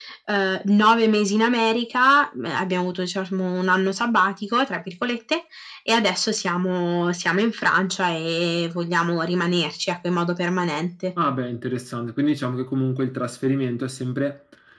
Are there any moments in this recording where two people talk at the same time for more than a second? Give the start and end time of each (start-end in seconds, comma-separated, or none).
none